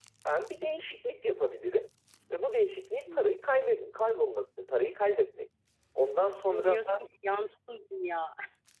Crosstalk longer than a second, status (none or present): none